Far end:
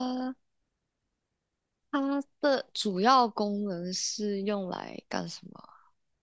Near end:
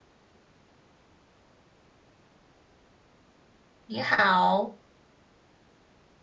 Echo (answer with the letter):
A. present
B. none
B